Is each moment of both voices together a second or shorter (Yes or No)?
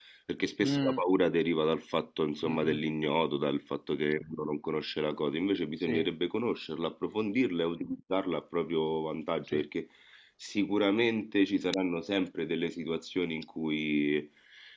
Yes